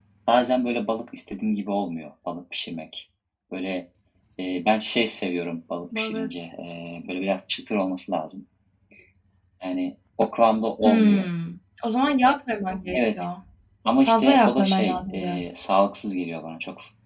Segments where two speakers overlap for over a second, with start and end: 14.0-15.5

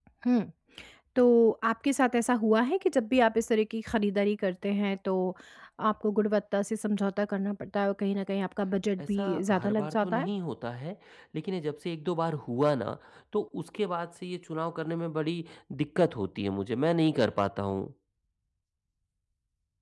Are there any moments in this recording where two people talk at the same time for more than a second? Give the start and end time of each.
9.0-10.3

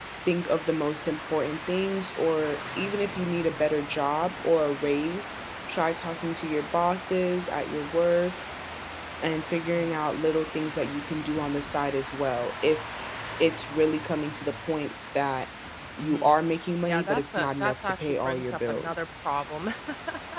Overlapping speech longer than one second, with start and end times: 16.9-19.1

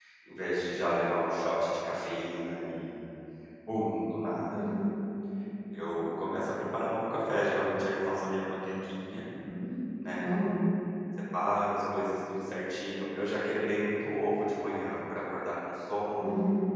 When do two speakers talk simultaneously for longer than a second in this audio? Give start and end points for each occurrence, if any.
none

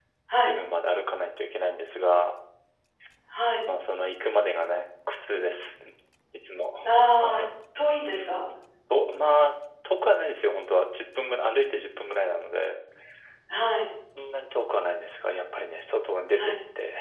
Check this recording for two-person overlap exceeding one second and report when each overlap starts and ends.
none

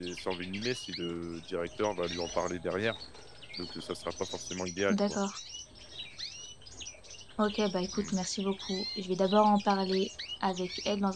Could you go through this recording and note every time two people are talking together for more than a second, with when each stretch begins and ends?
none

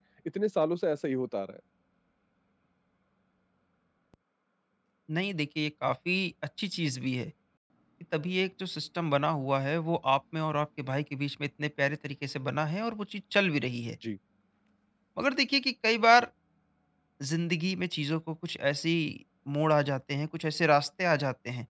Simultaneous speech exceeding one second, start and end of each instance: none

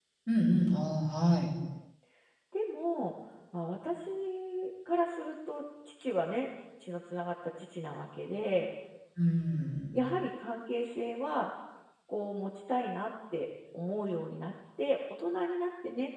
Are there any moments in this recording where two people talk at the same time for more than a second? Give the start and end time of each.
none

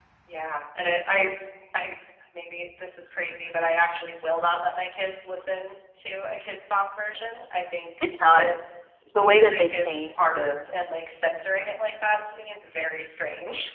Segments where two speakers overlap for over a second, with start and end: 9.2-10.7

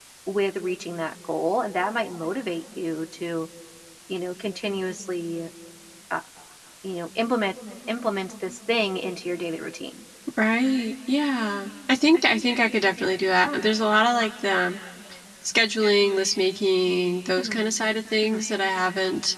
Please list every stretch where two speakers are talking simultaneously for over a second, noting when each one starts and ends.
none

